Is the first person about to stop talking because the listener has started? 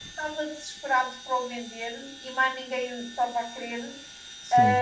No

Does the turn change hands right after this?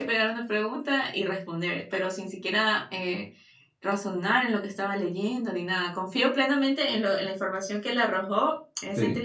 No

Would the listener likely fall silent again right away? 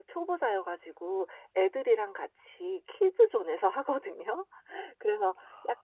Yes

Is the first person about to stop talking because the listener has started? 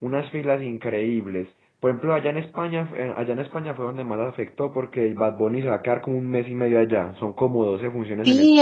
Yes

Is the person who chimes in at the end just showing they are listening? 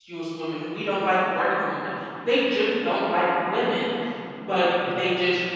Yes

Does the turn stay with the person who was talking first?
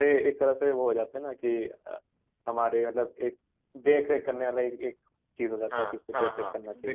No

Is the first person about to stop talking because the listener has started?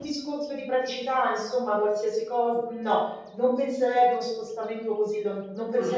No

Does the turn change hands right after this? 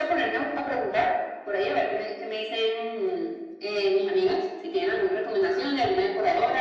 No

